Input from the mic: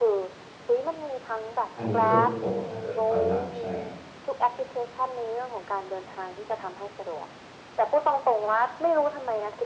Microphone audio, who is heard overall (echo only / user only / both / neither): both